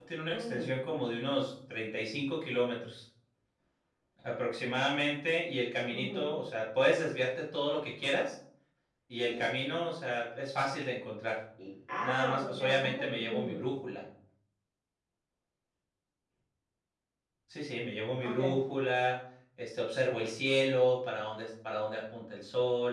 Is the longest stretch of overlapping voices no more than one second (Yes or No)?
No